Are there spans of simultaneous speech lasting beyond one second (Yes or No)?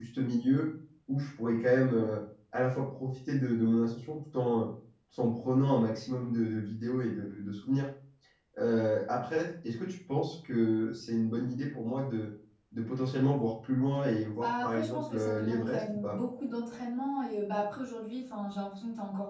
Yes